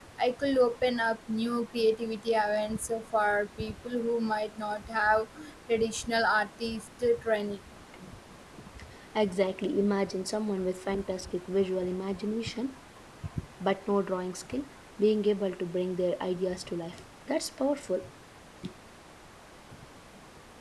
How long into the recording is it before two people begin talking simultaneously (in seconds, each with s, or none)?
none